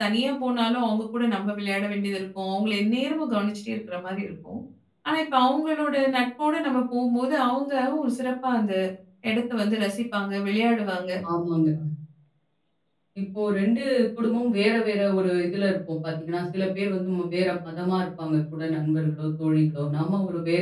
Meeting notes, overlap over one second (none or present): none